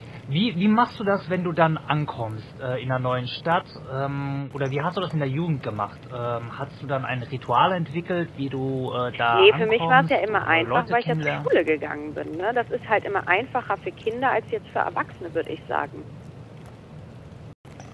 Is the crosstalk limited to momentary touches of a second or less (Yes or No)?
No